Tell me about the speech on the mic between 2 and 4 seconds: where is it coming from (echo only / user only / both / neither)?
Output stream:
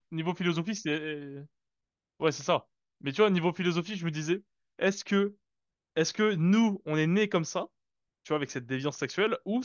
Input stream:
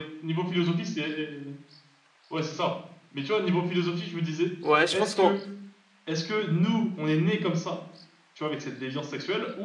echo only